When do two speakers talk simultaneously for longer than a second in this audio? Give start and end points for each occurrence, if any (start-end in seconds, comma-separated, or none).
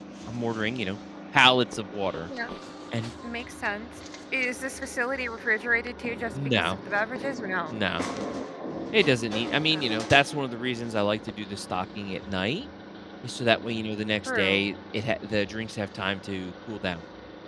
none